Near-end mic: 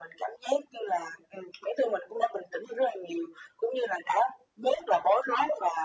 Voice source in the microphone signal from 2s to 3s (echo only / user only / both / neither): echo only